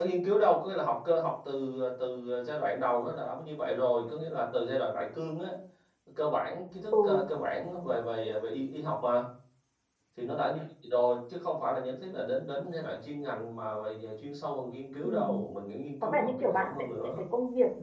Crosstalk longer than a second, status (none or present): present